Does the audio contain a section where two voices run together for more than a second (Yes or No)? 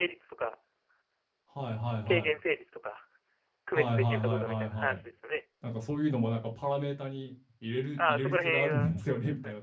Yes